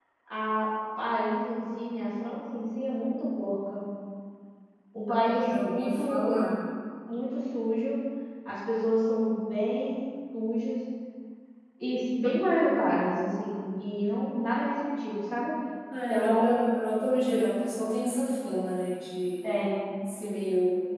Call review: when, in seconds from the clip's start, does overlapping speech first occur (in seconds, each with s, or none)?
5.2 s